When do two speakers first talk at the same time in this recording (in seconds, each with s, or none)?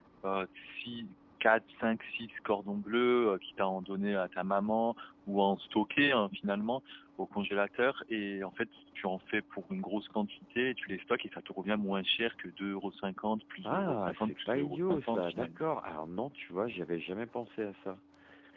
13.6 s